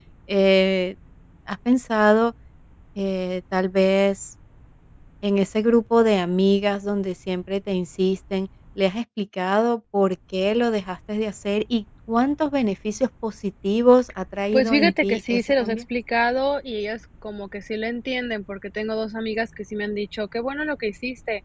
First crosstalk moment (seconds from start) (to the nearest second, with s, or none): 15 s